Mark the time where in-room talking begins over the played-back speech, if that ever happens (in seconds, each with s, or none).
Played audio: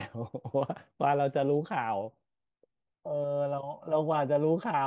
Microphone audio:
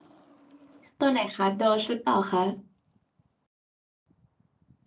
1.0 s